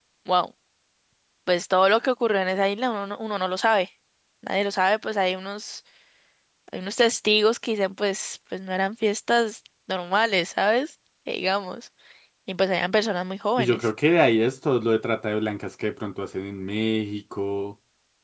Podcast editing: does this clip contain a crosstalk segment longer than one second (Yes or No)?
No